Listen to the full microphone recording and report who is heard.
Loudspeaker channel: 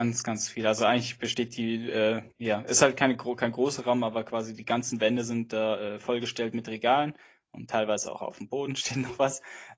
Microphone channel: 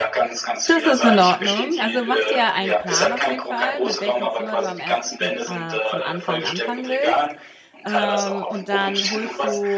both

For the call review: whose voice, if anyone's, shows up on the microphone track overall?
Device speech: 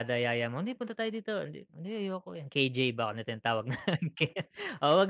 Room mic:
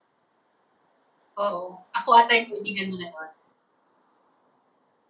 user only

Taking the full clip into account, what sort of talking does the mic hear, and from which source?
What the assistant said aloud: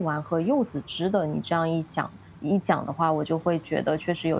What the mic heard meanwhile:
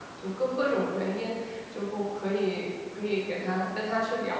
user only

